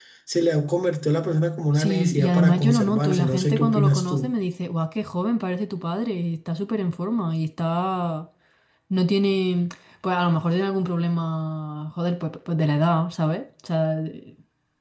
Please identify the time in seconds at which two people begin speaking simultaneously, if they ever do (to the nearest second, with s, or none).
2 s